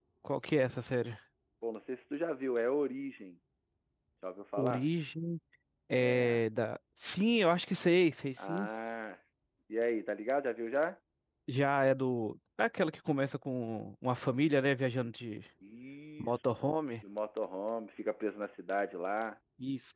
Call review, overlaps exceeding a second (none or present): none